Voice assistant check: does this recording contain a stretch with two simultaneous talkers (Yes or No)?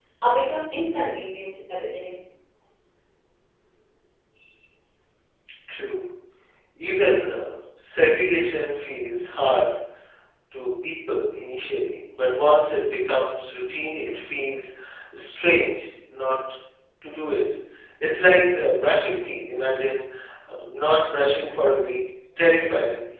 No